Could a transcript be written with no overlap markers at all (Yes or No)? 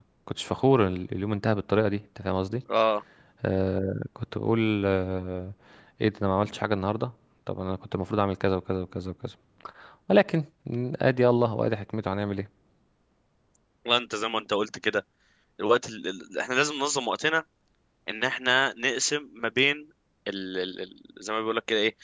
Yes